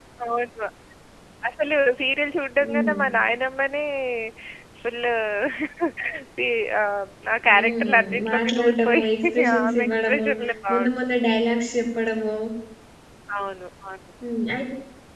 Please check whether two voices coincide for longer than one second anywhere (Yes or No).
Yes